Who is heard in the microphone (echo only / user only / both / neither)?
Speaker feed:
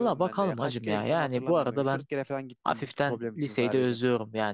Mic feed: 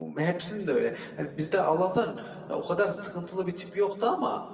user only